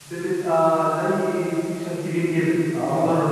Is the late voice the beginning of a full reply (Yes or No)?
Yes